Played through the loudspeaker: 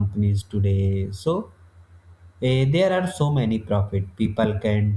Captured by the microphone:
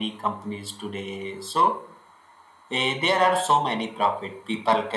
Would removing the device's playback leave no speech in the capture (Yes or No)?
Yes